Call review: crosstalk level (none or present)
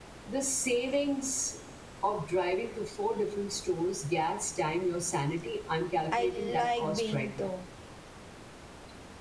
present